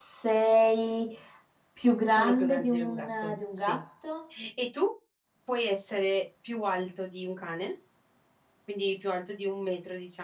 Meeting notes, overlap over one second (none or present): present